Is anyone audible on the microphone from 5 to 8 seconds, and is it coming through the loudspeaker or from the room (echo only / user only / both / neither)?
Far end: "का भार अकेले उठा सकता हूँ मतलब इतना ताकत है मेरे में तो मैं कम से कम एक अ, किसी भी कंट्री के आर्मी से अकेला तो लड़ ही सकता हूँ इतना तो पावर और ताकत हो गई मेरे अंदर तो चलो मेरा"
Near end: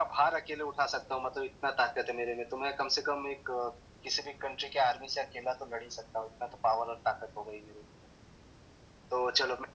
echo only